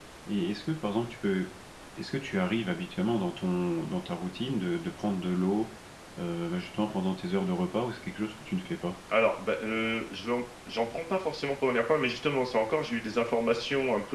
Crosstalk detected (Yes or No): No